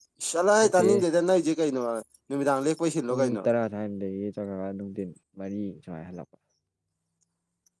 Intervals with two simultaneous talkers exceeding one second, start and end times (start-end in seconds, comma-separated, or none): none